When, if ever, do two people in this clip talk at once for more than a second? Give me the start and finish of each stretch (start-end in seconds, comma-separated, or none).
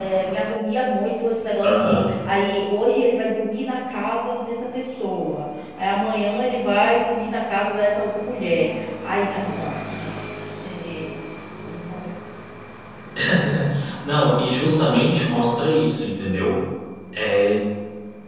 none